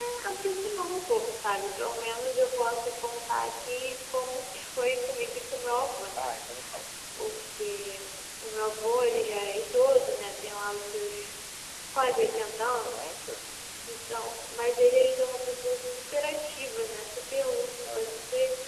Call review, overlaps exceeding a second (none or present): none